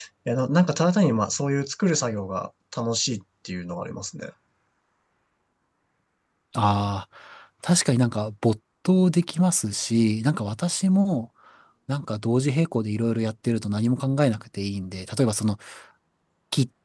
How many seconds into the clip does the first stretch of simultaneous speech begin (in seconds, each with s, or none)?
none